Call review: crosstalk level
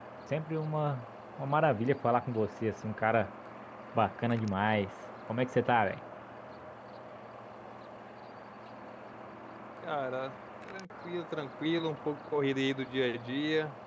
none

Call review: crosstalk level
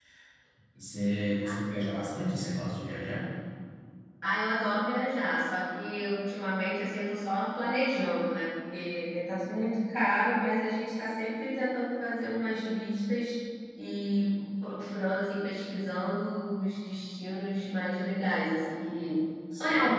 none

